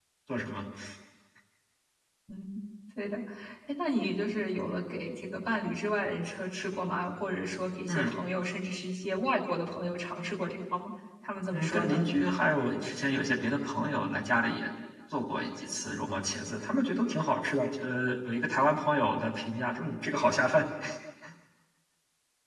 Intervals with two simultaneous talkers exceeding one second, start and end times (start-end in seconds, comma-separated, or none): none